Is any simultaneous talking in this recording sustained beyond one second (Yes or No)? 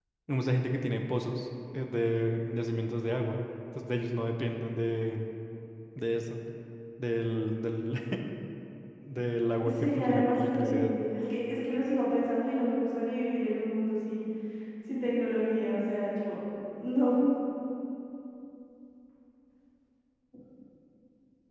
Yes